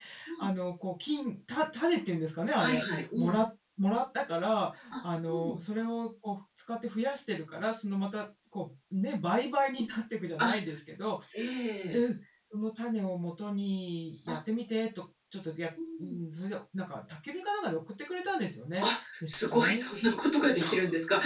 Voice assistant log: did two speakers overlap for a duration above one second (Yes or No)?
Yes